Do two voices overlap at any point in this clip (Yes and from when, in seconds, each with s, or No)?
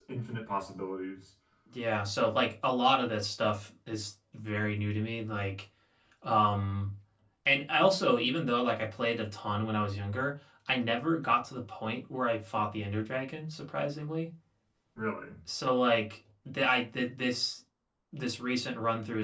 No